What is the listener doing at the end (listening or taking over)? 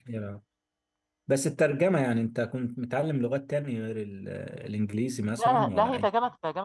taking over